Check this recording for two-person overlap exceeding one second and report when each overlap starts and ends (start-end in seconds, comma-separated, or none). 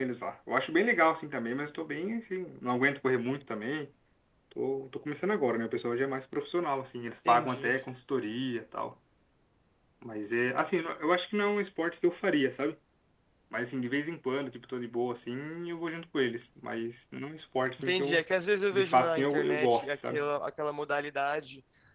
18.7-20.3